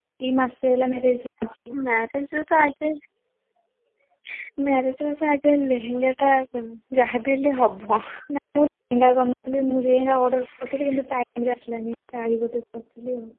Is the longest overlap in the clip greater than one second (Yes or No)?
No